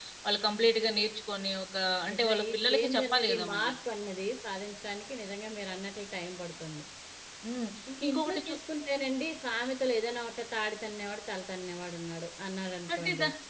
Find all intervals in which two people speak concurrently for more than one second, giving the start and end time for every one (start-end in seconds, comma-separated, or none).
2.1-3.7